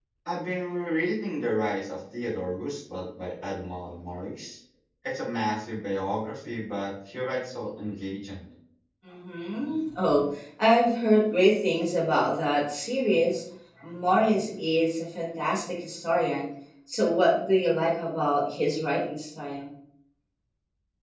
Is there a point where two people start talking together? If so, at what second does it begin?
none

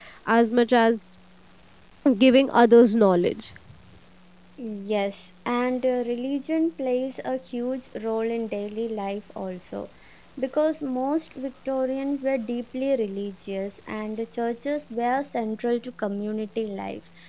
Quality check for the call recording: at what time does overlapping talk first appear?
none

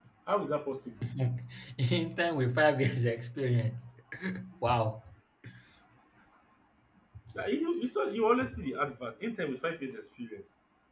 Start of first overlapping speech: none

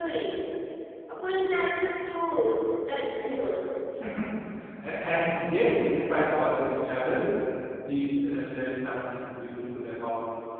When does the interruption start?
none

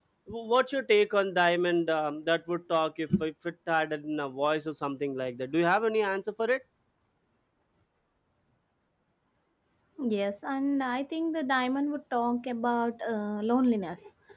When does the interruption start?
none

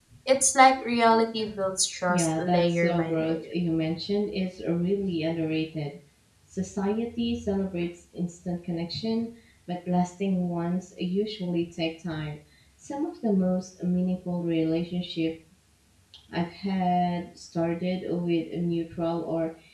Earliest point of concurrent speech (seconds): 2 s

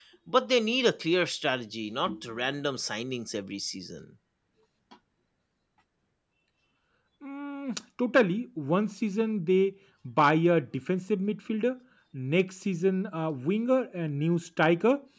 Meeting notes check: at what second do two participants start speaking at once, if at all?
none

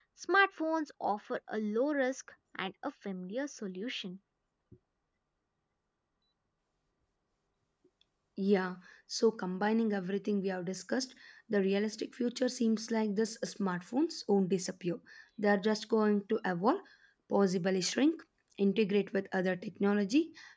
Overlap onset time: none

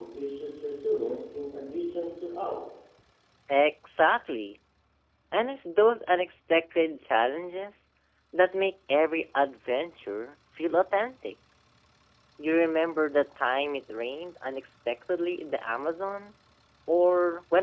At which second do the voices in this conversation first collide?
none

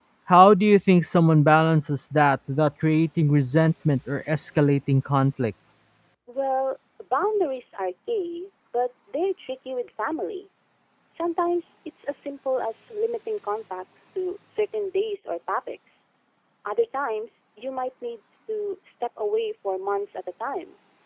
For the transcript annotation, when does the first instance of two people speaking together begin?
none

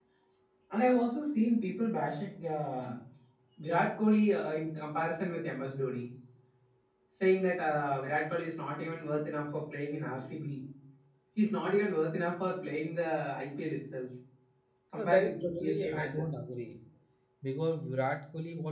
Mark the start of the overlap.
15 s

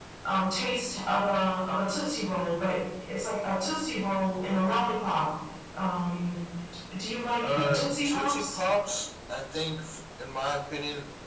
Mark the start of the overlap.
7 s

